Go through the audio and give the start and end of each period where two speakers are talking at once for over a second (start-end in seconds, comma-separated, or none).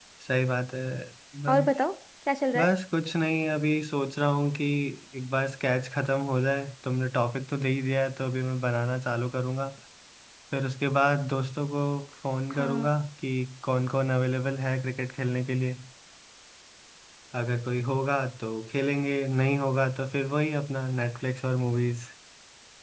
none